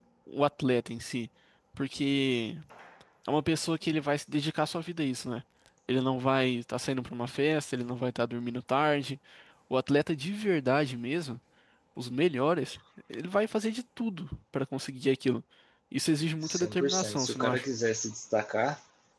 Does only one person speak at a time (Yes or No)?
No